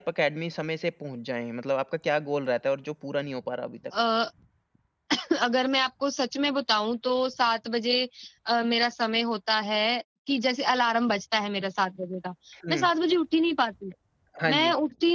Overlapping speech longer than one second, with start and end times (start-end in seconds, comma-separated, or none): none